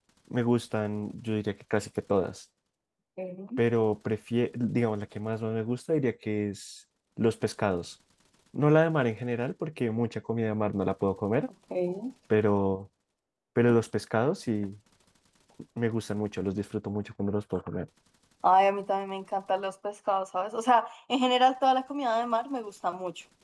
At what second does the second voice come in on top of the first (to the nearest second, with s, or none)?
none